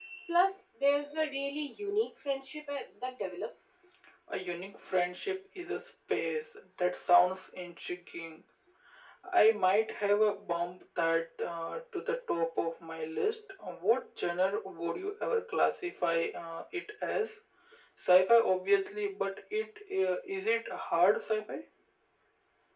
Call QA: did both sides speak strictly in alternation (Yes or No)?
Yes